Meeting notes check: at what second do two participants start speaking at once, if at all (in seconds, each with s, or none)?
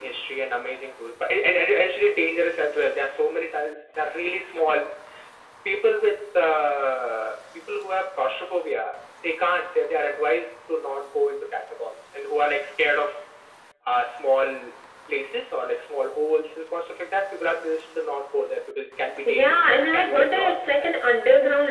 19.2 s